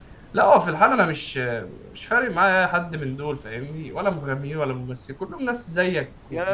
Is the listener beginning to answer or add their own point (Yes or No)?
Yes